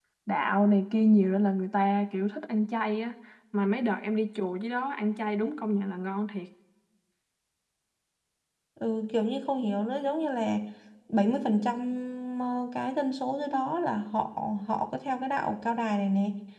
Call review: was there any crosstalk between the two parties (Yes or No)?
No